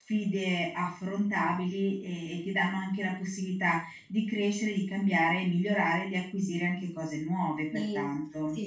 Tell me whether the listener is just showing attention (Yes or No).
No